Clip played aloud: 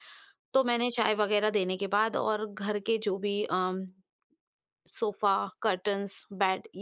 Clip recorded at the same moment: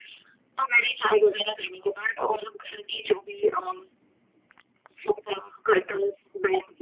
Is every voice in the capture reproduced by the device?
Yes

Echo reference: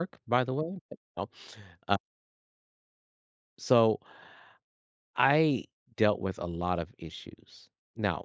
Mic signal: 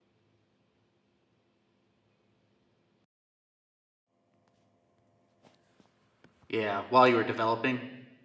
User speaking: Yes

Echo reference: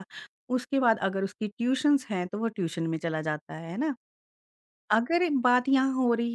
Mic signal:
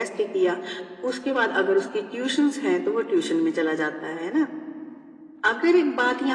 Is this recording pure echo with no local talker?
Yes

